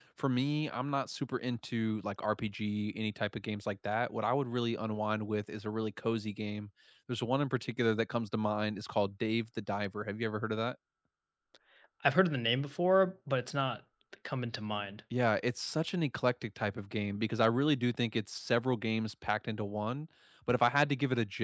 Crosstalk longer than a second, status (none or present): none